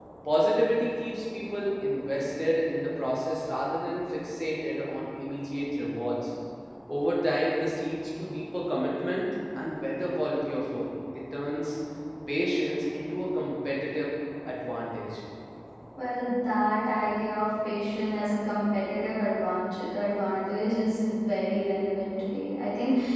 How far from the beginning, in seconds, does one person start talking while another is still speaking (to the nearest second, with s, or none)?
none